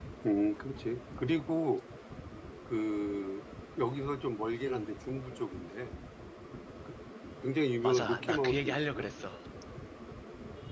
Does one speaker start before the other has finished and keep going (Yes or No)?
Yes